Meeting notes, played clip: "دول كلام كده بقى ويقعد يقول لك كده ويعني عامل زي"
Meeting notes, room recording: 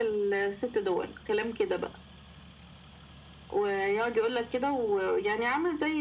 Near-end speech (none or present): none